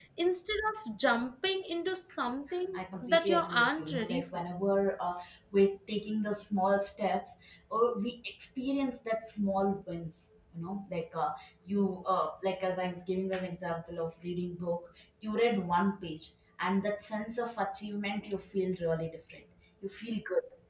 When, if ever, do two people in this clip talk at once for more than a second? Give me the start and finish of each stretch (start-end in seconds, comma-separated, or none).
2.7-4.4